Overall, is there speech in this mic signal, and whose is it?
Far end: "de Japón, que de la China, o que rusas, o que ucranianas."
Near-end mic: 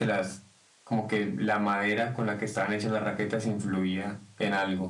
user only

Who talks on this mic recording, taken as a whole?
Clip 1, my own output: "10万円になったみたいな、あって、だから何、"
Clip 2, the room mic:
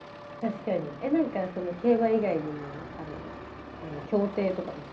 user only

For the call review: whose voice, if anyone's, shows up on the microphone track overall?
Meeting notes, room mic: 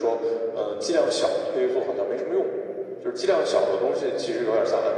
echo only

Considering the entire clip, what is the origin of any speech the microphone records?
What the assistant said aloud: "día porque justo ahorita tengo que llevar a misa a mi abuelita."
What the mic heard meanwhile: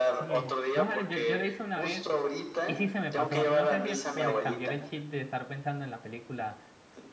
both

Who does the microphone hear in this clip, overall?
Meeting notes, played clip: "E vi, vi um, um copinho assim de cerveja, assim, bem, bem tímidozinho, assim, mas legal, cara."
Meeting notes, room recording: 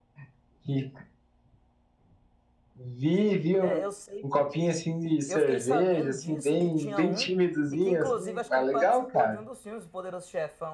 both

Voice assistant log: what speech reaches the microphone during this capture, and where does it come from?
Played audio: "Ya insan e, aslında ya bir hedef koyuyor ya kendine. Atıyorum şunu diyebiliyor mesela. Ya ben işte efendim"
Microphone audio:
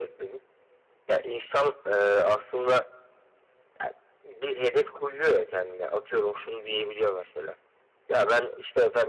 echo only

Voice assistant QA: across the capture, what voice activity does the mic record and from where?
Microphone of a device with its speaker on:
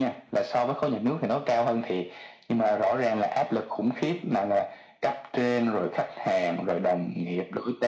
echo only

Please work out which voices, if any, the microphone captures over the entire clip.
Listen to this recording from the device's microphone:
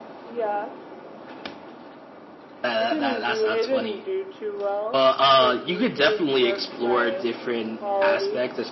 echo only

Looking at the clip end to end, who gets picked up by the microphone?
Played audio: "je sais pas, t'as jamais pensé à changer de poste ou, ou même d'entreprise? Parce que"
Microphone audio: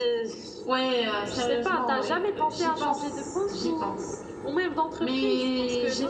both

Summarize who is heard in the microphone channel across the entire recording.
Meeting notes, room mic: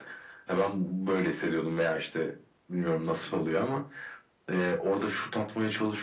echo only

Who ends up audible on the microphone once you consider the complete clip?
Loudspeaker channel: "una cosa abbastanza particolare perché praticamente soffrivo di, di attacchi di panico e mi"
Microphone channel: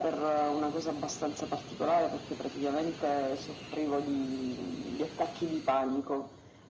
echo only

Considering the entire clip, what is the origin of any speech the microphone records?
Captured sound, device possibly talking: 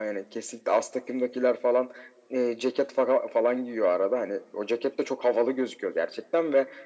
echo only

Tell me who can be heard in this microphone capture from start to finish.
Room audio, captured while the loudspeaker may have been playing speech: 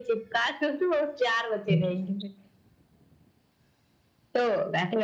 both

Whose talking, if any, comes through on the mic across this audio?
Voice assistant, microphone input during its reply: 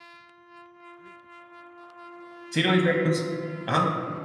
user only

